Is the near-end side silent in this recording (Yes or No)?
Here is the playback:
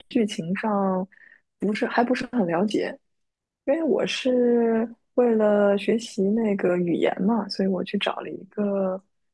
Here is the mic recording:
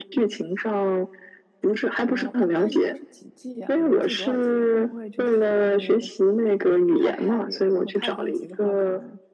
No